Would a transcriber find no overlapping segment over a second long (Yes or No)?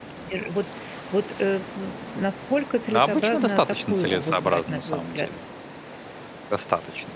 No